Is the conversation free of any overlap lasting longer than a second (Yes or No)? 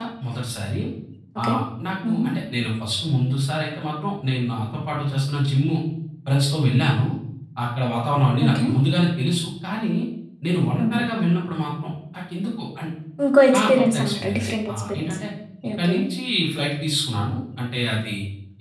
No